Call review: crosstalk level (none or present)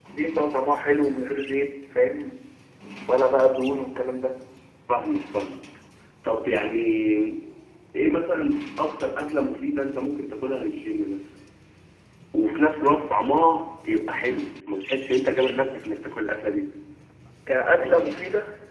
none